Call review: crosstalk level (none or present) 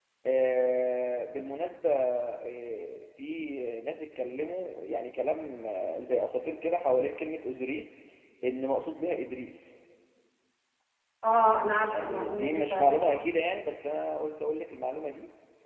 present